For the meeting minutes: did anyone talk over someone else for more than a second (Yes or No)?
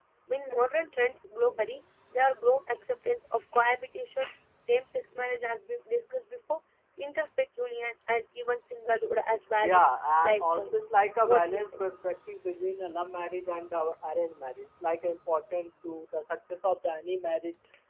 Yes